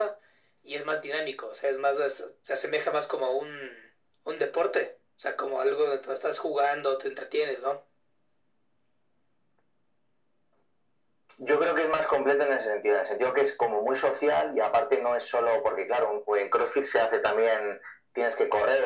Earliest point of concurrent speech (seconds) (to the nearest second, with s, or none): none